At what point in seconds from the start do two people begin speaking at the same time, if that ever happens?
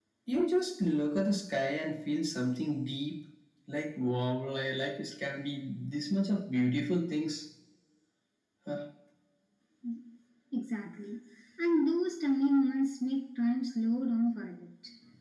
none

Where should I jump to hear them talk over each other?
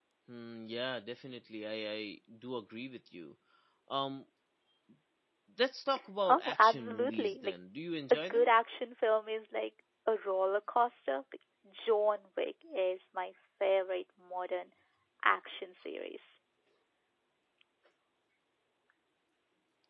6 s

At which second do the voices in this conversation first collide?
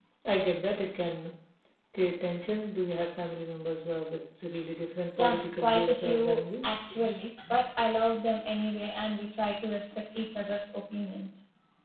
5 s

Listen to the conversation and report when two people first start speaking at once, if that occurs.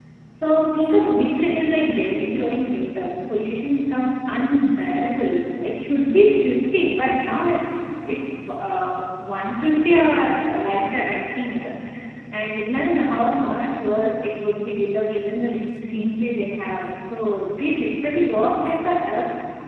none

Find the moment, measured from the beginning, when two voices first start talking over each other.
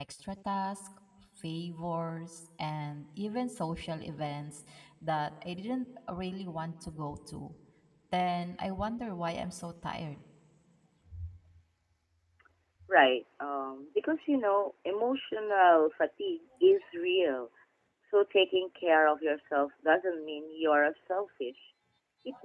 none

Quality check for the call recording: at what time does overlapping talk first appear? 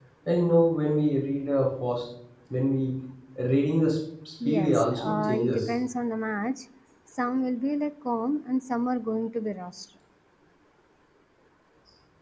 4 s

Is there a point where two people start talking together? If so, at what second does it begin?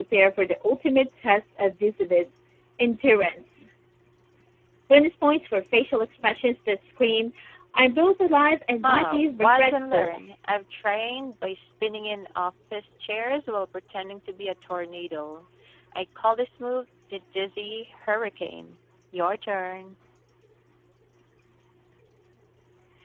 9 s

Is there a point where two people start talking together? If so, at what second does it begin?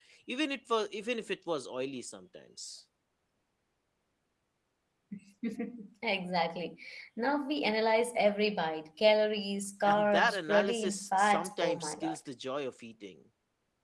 10 s

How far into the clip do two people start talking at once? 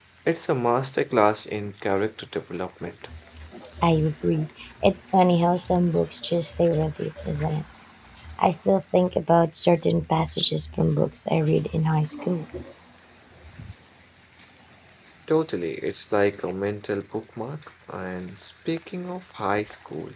none

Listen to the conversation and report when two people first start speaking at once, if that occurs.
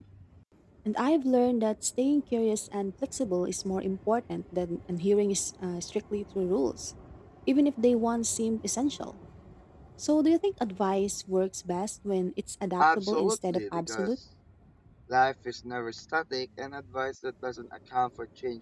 13 s

